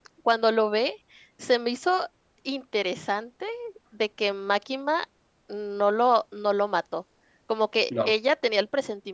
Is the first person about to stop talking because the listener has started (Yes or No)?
No